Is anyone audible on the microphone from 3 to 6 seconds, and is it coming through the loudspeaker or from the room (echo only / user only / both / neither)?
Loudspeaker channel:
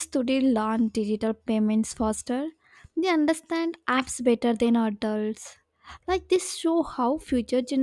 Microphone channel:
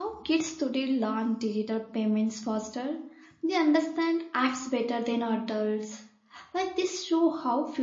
echo only